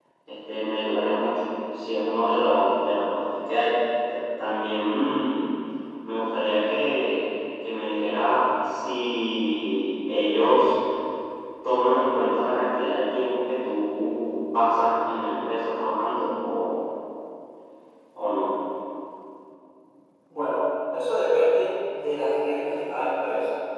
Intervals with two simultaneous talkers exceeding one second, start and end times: none

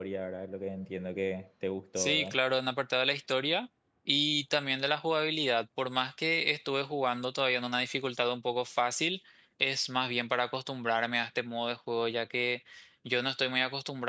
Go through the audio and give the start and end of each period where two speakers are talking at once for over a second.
none

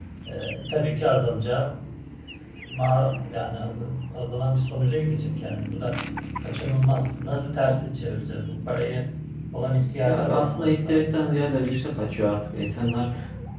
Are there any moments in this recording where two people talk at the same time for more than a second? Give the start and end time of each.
10.0-11.4

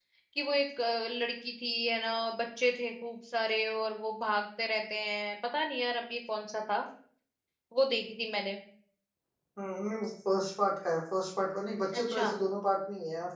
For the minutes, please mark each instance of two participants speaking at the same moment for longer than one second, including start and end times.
none

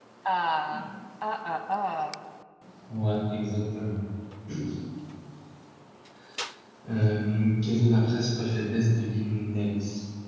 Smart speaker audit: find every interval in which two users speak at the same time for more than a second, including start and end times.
none

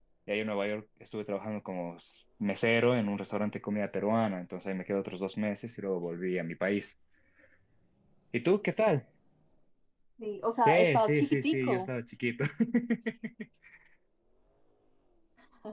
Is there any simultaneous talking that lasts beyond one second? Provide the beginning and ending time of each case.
10.6-11.9

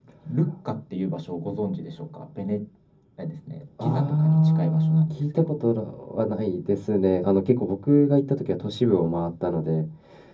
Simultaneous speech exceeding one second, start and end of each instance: 3.8-5.6

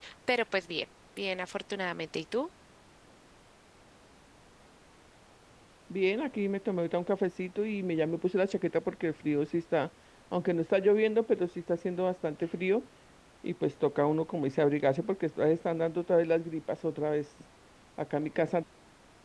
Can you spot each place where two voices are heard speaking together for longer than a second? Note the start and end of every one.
none

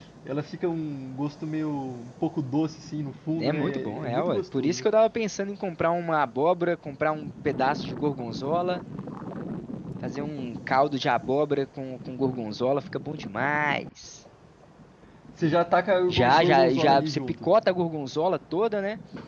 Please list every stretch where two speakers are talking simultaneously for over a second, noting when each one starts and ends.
3.4-4.8, 16.1-17.4

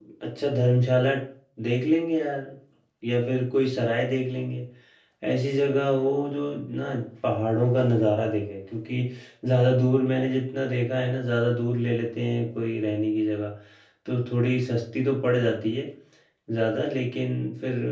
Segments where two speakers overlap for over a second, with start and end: none

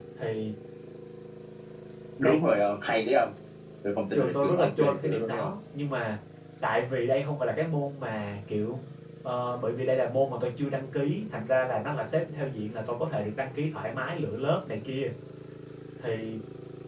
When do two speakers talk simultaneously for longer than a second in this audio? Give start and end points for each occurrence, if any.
4.1-5.5

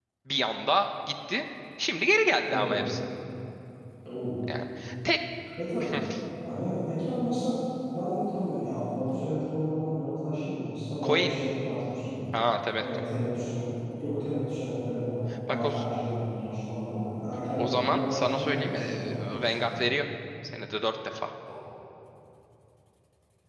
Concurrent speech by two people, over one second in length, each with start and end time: 17.6-19.8

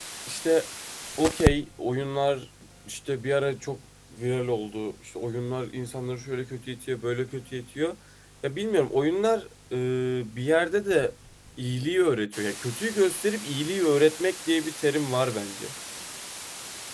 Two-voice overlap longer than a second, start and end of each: none

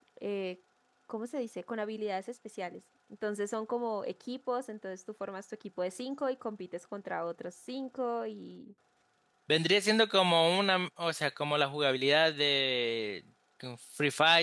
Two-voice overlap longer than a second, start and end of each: none

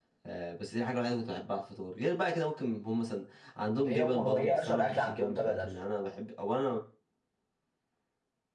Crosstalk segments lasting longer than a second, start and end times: 3.8-5.7

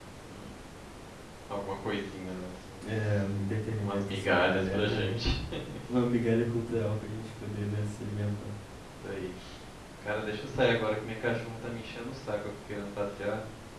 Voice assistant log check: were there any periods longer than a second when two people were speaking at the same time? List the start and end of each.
3.8-5.0

